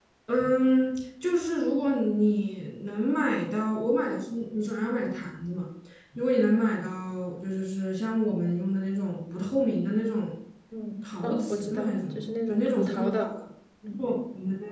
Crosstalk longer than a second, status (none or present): present